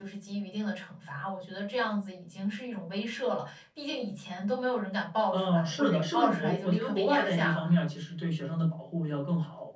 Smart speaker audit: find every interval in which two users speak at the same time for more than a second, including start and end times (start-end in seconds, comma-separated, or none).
5.3-7.7